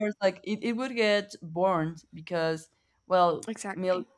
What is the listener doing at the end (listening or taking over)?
listening